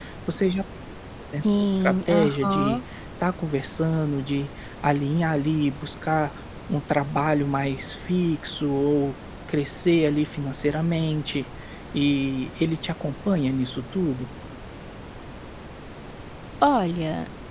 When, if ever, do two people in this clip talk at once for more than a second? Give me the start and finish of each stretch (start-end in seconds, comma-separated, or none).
1.4-2.8